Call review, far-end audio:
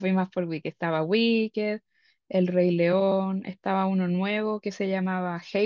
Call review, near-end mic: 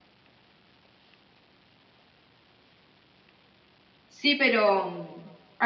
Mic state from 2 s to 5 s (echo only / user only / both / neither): user only